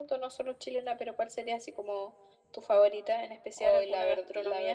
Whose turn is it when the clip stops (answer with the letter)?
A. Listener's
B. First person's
A